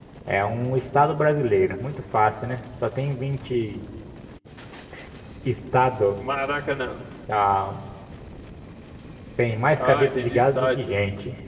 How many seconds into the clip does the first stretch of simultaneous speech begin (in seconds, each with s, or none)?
9.8 s